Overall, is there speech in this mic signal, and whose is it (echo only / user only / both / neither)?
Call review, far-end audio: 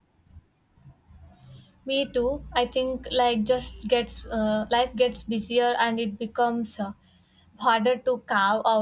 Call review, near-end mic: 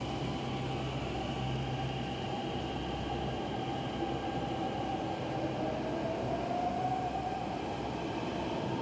neither